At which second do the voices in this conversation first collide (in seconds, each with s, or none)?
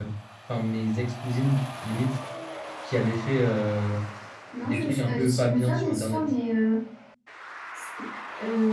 4.7 s